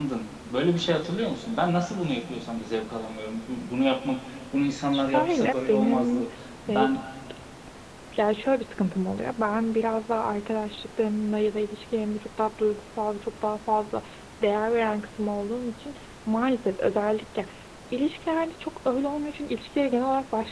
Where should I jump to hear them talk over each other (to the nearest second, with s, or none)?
5 s